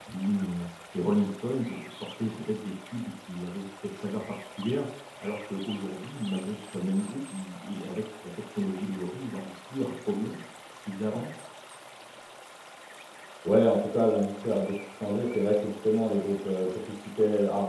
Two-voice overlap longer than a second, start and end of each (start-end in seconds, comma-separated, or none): none